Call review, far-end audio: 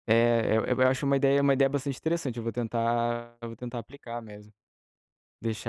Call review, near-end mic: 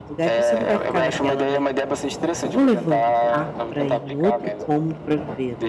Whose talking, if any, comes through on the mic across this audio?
both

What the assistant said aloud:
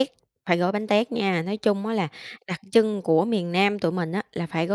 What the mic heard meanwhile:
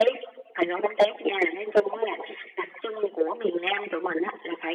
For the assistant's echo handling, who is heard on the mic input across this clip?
echo only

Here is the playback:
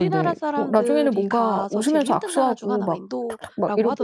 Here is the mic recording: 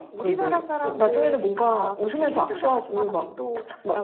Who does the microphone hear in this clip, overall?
echo only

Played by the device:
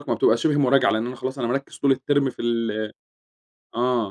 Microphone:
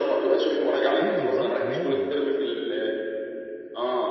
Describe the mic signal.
both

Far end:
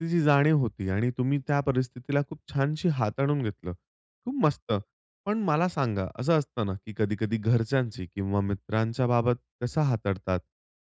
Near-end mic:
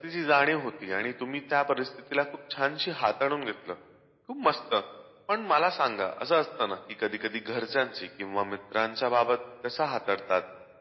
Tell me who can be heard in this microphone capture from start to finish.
echo only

